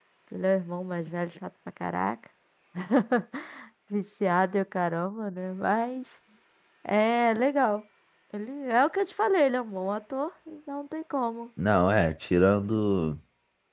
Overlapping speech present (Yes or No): No